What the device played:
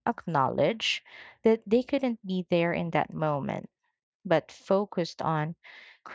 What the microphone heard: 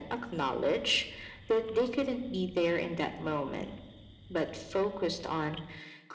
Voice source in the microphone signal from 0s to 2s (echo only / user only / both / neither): echo only